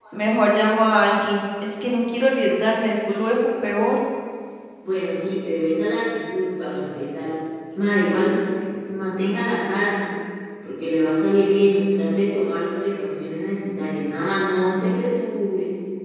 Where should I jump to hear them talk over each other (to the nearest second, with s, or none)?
none